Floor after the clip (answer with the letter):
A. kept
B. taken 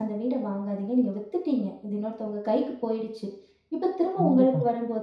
A